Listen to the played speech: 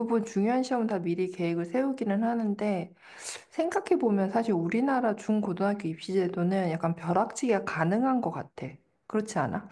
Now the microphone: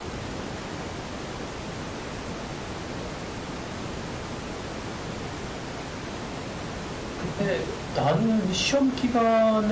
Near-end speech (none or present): present